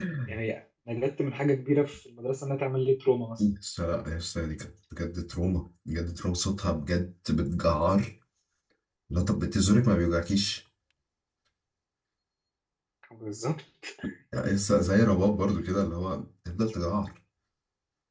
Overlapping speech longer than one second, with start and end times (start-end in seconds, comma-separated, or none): none